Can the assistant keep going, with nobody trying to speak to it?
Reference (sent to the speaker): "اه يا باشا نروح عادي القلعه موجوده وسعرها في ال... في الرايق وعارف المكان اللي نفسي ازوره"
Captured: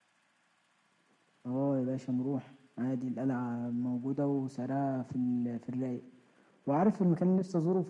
Yes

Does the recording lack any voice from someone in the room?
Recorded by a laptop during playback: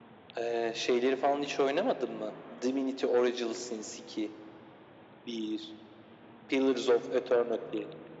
Yes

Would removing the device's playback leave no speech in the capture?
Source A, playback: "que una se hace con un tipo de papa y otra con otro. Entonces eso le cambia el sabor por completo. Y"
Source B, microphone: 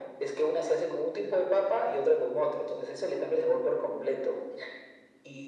Yes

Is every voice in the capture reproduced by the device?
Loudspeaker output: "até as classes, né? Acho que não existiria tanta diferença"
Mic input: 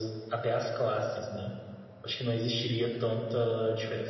Yes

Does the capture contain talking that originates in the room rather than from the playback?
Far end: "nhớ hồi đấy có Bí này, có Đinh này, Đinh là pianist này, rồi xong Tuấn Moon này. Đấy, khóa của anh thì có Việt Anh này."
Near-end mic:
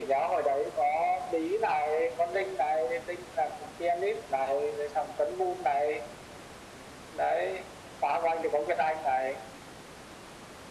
No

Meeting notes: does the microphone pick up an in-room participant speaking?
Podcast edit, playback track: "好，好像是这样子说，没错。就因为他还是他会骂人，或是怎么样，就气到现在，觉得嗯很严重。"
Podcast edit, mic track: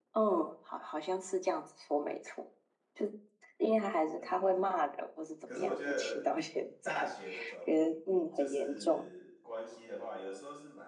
Yes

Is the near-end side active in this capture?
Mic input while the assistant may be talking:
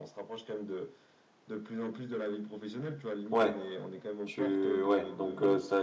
Yes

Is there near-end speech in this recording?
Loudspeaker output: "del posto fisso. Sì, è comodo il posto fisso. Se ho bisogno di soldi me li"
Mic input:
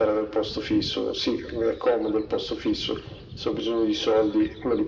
No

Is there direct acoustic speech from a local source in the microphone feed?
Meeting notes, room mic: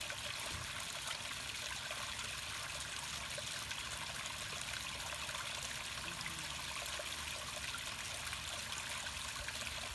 No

